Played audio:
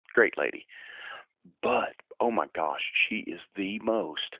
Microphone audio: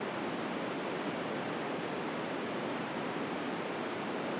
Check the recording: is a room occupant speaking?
No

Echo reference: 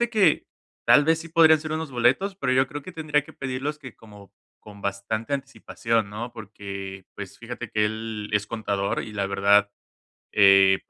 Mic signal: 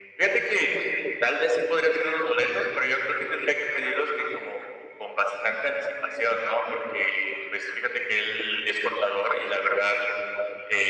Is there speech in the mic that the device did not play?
No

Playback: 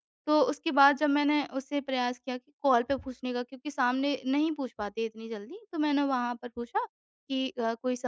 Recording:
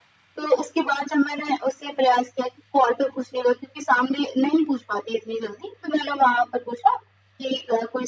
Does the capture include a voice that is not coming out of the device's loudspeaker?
No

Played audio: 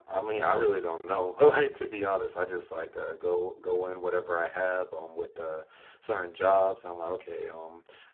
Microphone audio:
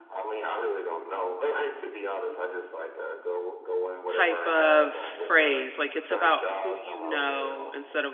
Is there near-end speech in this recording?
Yes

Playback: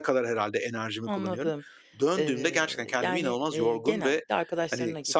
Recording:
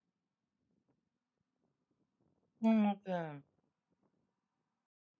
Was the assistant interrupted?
Yes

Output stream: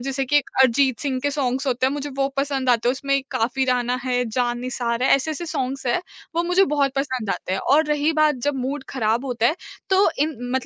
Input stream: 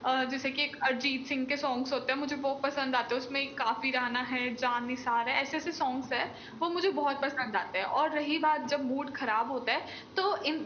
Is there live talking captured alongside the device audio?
No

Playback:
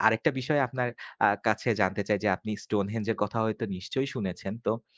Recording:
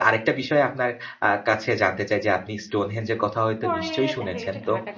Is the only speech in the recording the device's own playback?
No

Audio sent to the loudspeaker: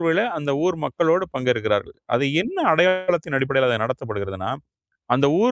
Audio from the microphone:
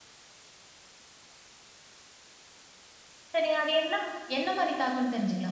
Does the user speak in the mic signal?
Yes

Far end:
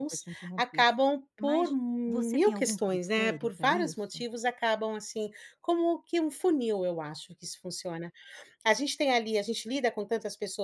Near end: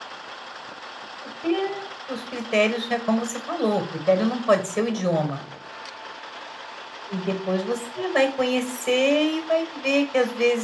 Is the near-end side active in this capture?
Yes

